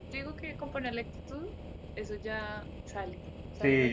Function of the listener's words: taking over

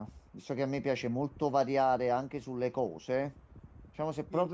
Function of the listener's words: listening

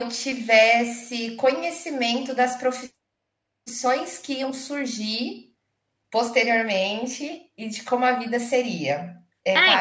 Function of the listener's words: taking over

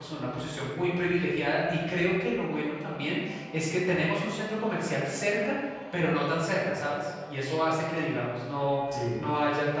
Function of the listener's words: listening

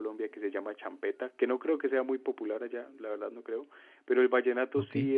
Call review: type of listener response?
listening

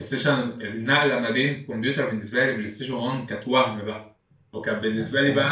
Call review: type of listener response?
listening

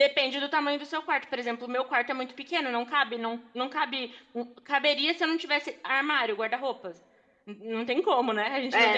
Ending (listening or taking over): taking over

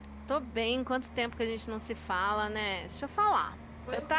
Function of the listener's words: listening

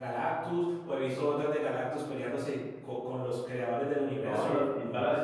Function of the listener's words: taking over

